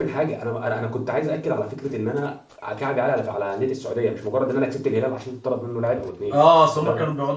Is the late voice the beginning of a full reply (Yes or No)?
Yes